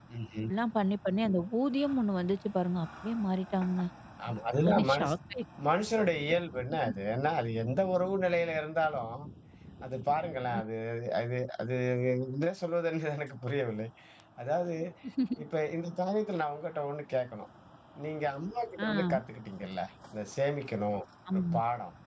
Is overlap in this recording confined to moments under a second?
Yes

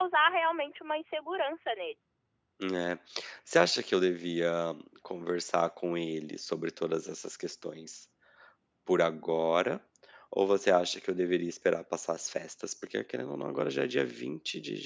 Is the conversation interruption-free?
Yes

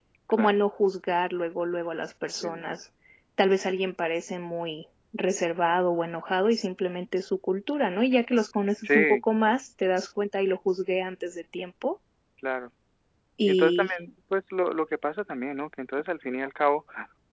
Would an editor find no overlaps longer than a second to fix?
Yes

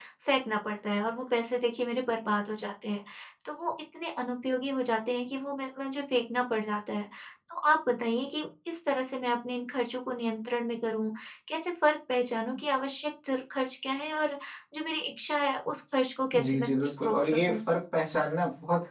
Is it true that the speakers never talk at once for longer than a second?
No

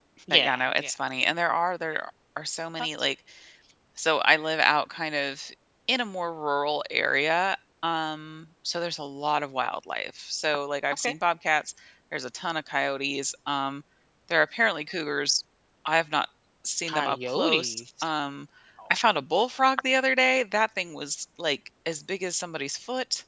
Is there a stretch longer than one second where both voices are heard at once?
Yes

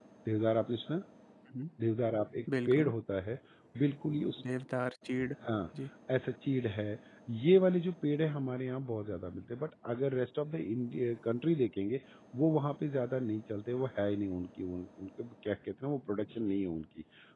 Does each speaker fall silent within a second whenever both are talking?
Yes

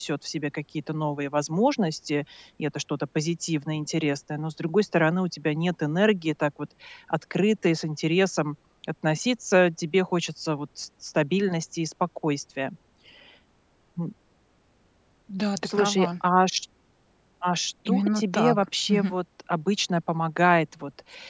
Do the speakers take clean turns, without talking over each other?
No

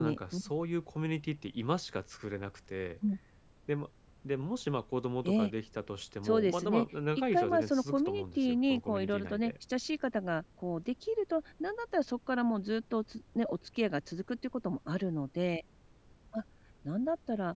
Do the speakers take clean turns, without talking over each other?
No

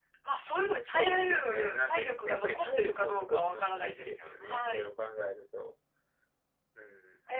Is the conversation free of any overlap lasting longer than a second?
No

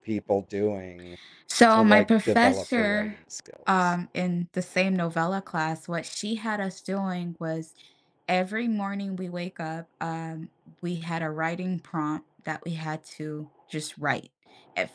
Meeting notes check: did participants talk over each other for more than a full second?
Yes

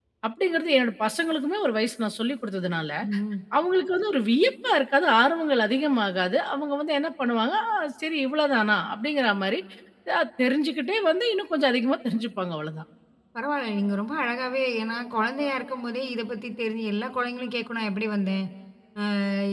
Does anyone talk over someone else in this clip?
No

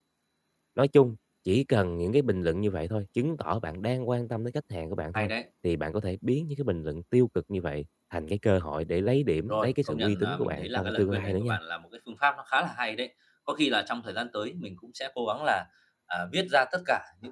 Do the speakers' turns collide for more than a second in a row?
Yes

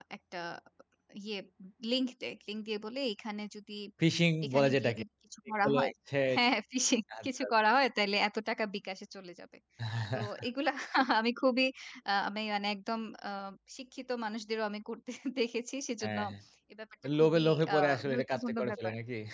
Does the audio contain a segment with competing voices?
Yes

